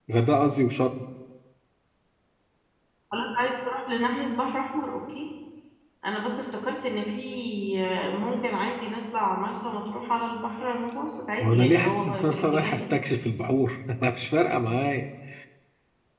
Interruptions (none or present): present